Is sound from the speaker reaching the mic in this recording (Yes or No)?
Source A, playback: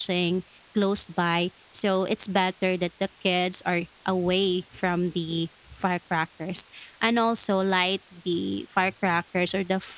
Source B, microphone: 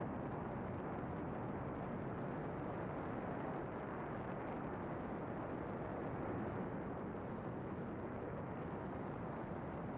No